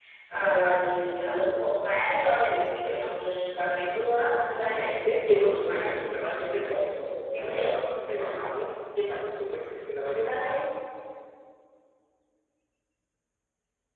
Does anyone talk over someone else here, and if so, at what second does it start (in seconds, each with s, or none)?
4.5 s